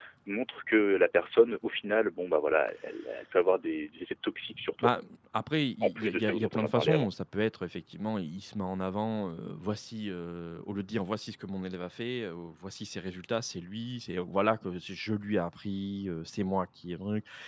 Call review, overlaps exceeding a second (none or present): present